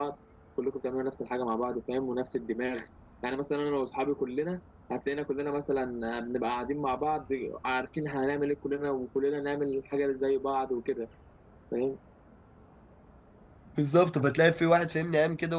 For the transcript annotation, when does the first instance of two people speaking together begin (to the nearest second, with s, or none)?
none